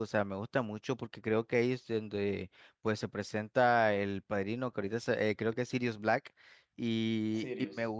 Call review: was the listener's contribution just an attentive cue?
Yes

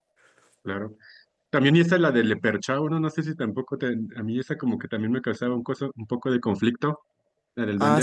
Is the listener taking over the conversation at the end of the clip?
Yes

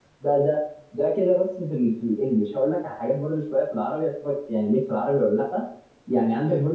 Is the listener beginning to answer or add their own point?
No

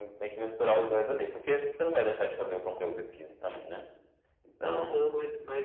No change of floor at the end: No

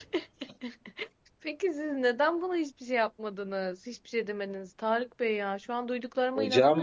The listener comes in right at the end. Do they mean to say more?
No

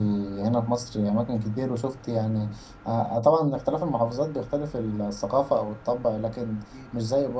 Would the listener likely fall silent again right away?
Yes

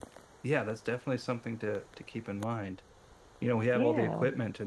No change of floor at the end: Yes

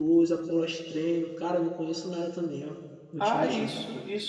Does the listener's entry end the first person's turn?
Yes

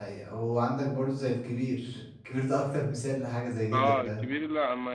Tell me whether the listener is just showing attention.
No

